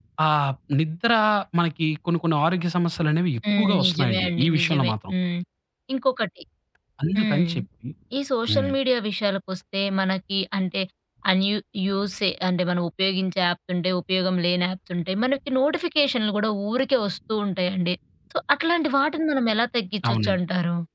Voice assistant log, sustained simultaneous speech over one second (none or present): present